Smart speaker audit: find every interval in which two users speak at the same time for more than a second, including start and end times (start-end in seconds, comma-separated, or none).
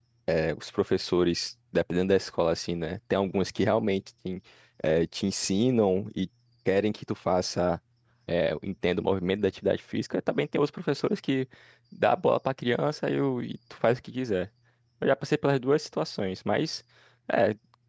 none